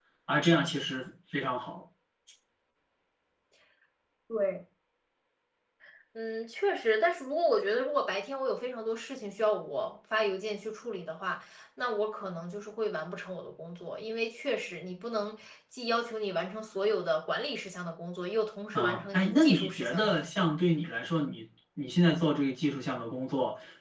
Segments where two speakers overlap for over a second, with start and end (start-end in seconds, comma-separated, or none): 18.7-20.5